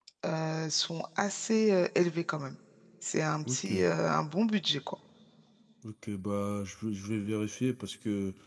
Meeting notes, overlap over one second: none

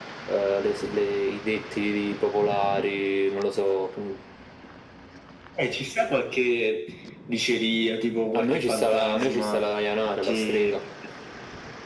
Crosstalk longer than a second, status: present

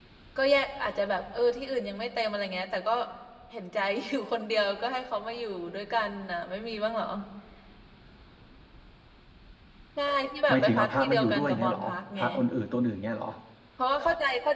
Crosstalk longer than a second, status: present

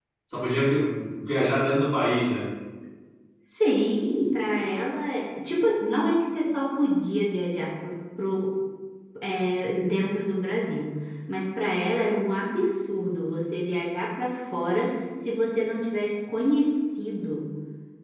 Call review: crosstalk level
none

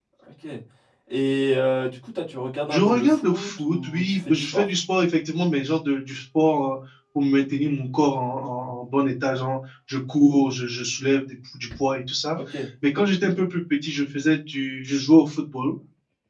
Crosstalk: present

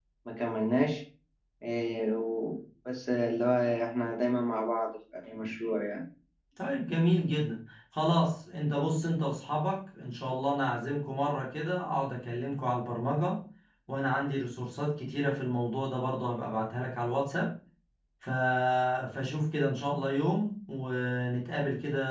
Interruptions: none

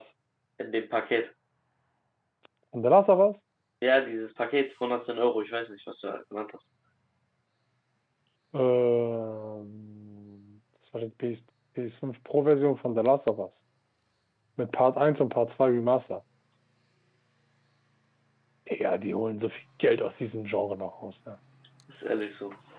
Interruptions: none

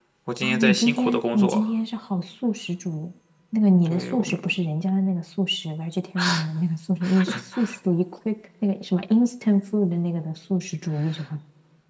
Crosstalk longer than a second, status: present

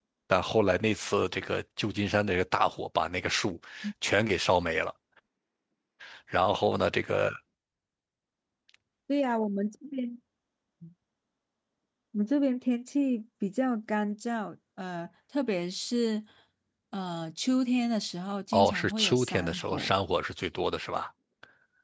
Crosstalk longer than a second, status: present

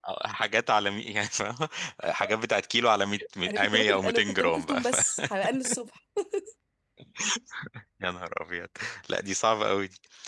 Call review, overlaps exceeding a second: present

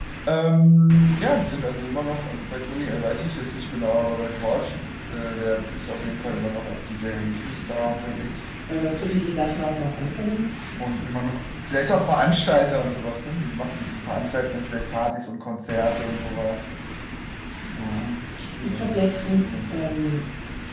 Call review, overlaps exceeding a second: present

